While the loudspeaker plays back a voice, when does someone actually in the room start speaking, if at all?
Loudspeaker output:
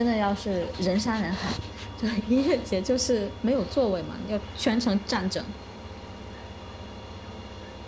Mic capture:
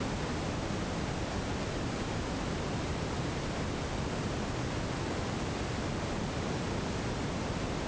none

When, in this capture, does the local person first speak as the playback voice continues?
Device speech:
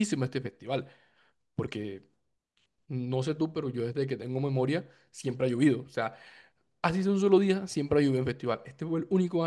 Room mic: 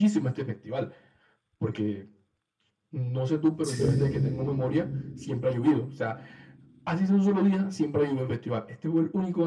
3.6 s

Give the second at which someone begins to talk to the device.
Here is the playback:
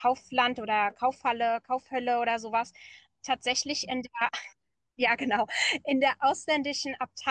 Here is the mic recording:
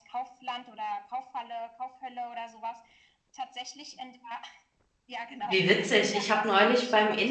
5.4 s

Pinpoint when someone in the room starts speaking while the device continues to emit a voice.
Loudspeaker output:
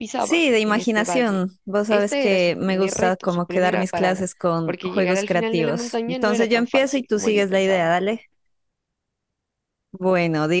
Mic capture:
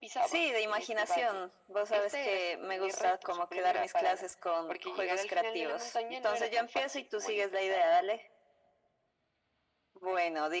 none

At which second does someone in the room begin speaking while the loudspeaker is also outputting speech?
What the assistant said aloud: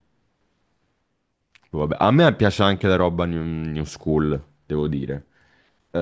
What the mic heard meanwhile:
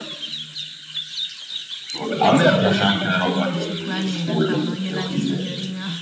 2.2 s

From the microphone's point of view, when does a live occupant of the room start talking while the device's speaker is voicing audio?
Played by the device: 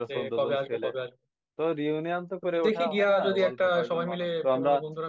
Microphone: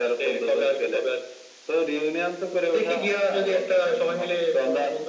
none

